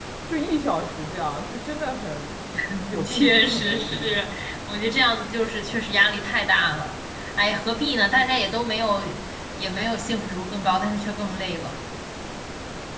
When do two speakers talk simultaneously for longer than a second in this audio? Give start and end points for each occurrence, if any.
3.0-4.3

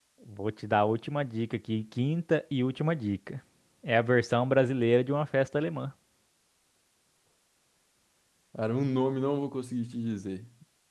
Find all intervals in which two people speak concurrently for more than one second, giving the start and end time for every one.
none

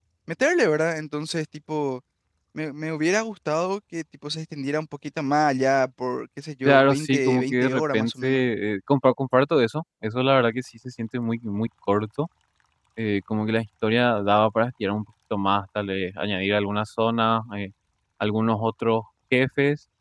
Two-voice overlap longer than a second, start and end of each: 6.6-8.4

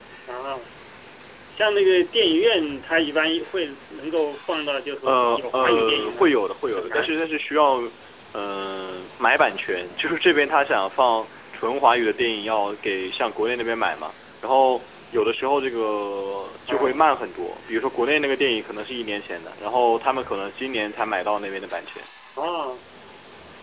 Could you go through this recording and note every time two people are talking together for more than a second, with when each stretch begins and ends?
5.0-6.3

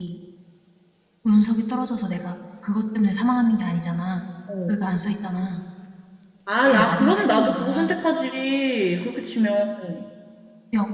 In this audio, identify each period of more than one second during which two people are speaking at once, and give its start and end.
6.7-7.9

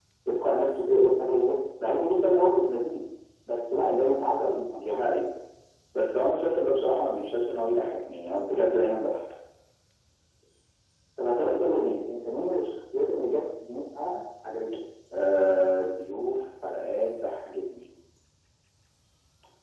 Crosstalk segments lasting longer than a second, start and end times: none

